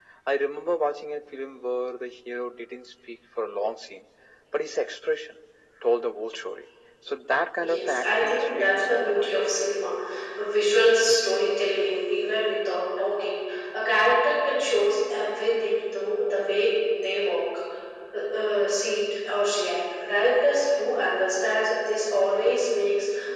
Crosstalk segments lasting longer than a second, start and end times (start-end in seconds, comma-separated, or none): 7.6-9.3